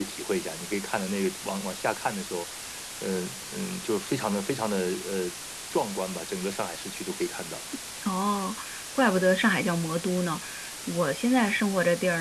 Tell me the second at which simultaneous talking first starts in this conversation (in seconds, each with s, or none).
none